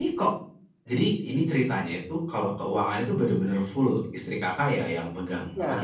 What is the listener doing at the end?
taking over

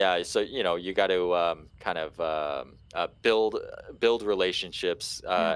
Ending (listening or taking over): listening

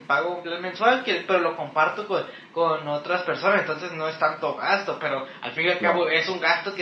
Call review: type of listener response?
listening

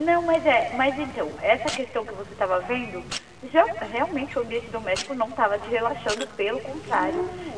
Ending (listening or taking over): listening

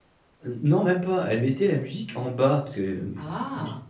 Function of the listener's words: listening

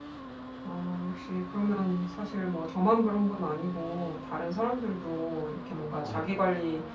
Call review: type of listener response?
listening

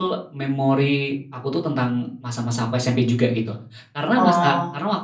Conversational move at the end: listening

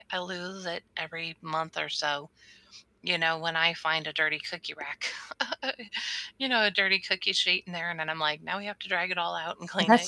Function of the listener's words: taking over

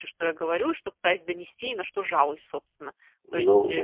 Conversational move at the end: taking over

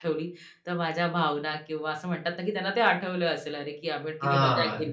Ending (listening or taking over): taking over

